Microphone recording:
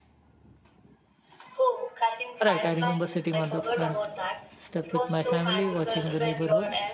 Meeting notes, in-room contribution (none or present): present